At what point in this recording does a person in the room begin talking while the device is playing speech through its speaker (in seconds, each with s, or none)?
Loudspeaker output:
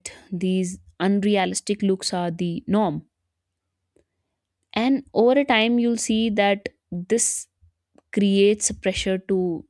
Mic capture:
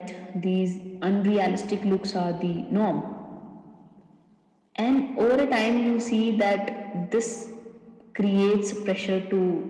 none